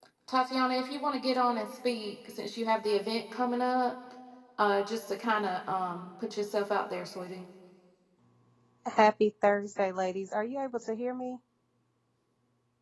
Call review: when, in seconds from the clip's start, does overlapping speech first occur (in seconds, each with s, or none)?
none